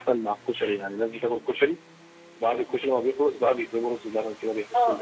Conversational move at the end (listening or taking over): taking over